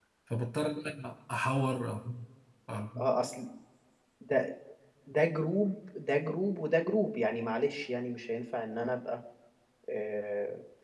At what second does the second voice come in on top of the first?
none

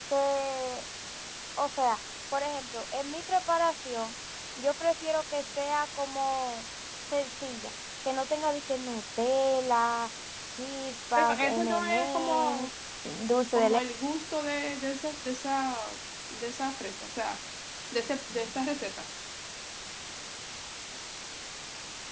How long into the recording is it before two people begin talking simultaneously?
11.2 s

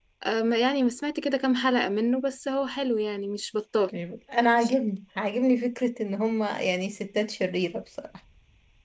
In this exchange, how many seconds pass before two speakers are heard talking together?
none

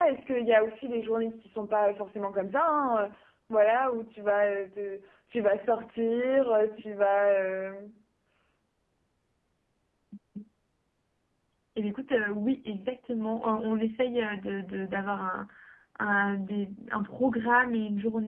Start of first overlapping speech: none

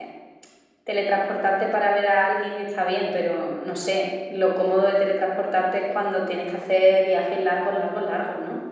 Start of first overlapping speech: none

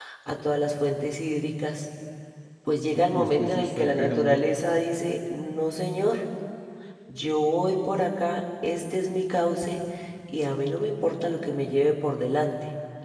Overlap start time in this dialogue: 3.1 s

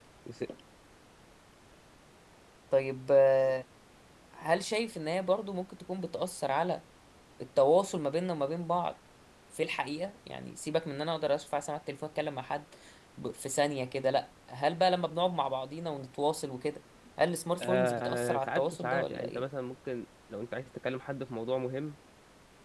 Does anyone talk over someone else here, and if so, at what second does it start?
17.6 s

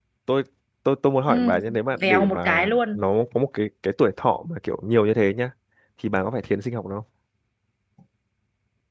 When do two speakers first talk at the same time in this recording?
1.3 s

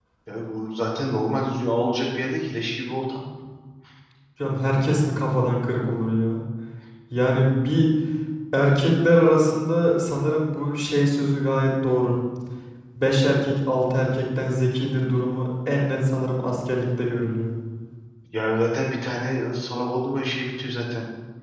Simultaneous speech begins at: none

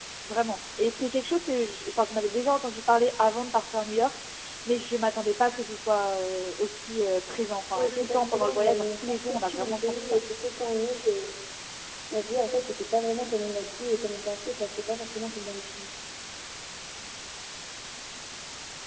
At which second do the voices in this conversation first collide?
7.8 s

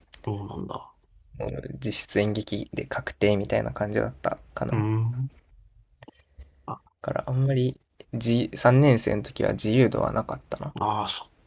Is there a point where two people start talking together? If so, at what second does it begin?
none

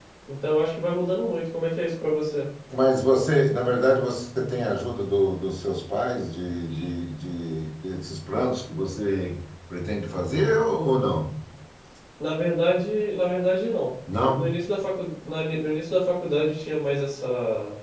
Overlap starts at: none

